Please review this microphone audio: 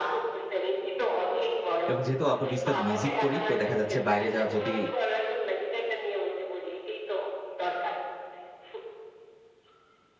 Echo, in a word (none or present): present